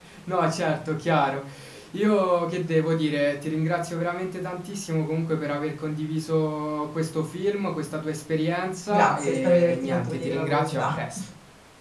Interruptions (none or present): present